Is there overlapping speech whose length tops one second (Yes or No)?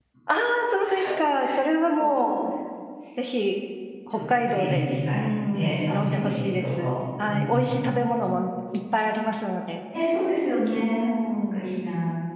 Yes